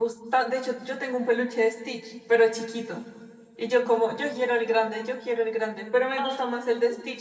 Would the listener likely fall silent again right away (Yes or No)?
Yes